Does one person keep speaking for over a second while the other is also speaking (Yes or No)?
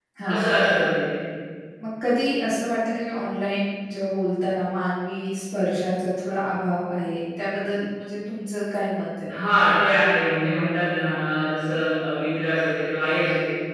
No